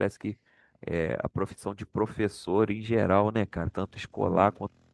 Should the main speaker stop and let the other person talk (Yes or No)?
No